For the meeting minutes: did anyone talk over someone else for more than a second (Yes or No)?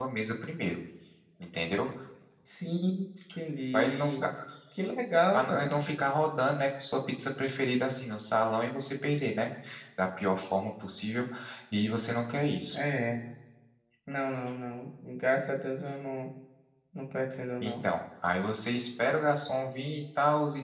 No